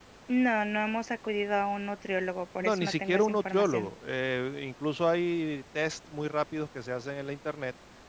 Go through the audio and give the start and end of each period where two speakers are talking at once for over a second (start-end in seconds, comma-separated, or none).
2.6-3.9